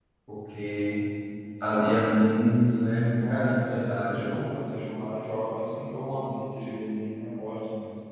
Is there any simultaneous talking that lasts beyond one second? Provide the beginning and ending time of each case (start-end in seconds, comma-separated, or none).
3.2-4.4